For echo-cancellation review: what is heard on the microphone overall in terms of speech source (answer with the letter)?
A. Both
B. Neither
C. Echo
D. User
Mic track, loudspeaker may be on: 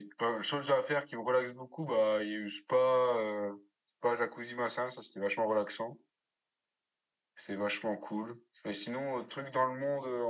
C